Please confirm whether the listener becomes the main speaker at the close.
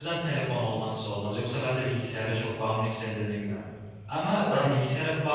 No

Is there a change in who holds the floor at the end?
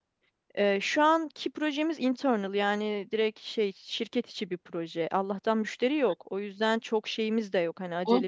Yes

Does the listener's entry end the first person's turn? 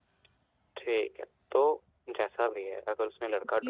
Yes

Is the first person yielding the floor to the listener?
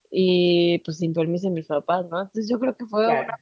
No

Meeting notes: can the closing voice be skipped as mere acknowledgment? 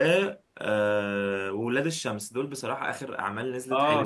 No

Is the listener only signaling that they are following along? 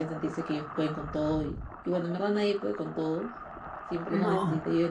Yes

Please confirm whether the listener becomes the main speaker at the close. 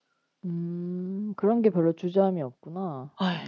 Yes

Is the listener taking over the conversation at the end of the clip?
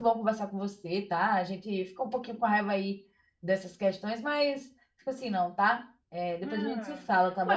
Yes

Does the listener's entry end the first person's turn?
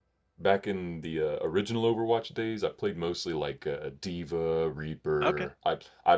No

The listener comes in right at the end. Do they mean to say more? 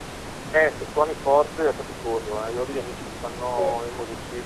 No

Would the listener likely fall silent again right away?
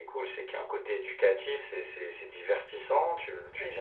Yes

